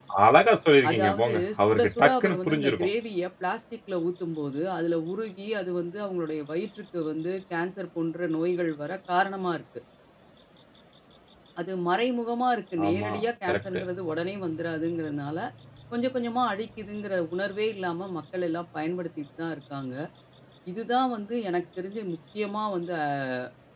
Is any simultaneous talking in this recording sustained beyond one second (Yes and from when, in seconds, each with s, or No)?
Yes, from 0.9 s